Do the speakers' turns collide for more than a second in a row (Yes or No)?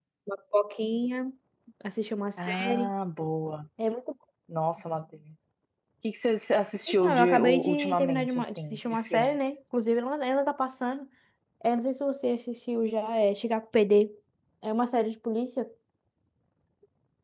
Yes